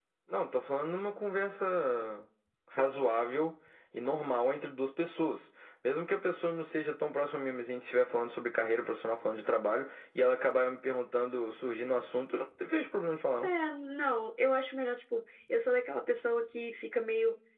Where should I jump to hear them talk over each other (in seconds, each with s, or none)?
none